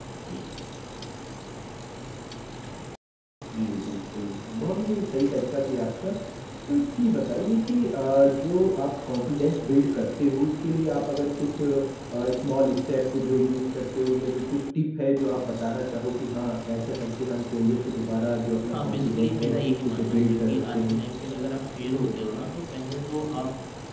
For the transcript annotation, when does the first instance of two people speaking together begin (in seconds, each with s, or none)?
18.7 s